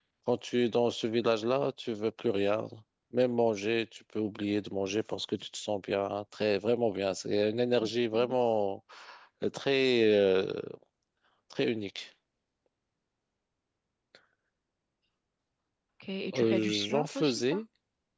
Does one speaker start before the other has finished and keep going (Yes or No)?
Yes